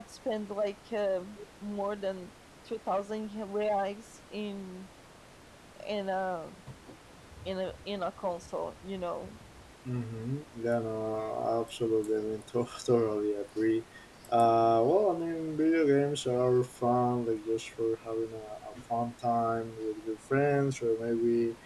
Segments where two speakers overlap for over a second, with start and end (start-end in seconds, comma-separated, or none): none